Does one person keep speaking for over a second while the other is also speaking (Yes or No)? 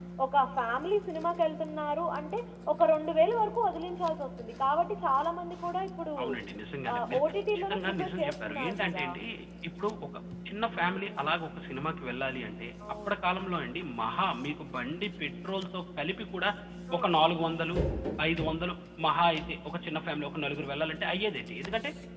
Yes